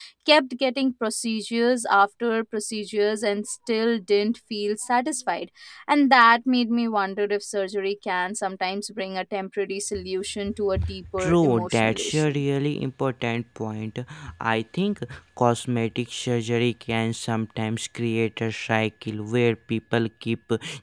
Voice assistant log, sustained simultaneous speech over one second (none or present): present